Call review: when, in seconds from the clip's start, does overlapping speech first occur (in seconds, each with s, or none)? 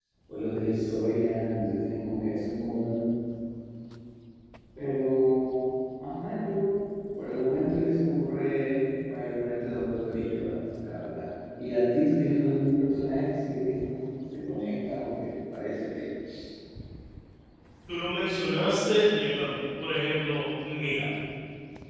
none